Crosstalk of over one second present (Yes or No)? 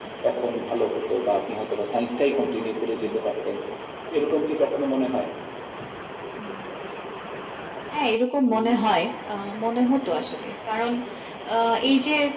No